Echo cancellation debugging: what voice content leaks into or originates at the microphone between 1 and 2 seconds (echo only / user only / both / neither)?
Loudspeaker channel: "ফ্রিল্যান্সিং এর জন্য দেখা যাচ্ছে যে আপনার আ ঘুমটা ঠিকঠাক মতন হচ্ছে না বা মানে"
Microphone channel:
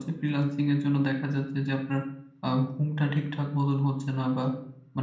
echo only